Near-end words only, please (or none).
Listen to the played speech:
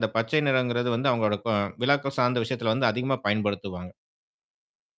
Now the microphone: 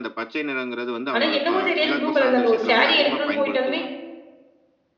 ஆனா, என்னவோ தெரியாது, புளு கலர் தாங்க. ஒரு ஸேரி எடுக்கணுனு போயிட்டாலுமே